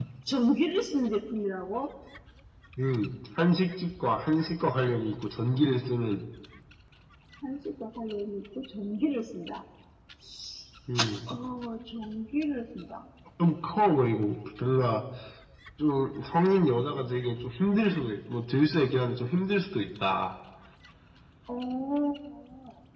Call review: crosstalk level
none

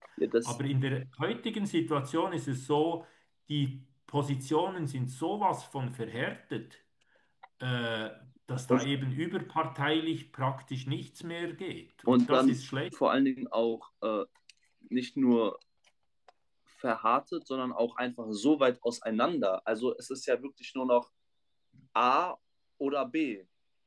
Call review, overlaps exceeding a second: none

